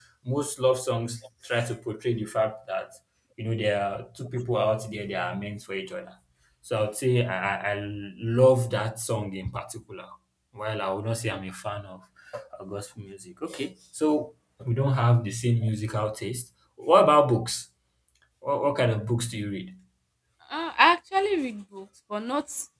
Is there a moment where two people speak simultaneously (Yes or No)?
No